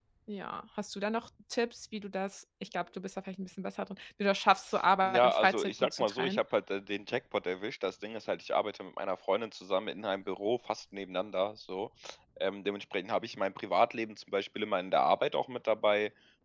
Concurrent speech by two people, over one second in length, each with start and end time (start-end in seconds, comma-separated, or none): 5.0-6.4